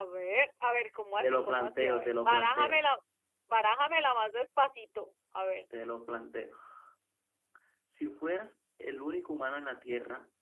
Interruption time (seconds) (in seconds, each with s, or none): 1.2 s